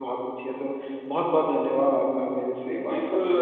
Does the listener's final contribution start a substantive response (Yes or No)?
Yes